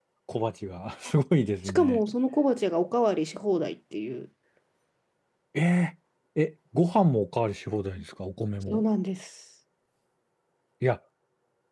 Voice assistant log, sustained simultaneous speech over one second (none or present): none